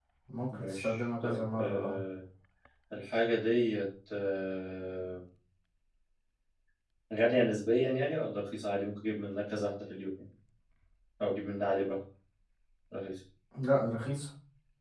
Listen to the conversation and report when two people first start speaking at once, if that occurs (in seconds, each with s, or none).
0.5 s